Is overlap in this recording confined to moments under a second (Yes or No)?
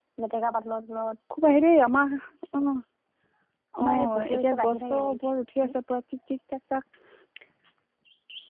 No